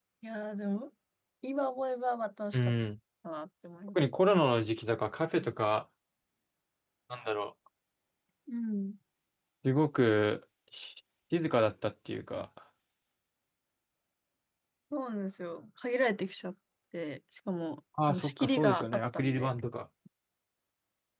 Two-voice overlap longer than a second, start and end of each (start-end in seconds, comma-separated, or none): 18.1-19.5